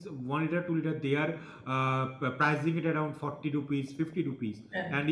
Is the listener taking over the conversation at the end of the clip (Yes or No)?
No